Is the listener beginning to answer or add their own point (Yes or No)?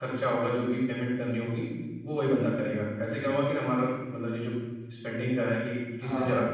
No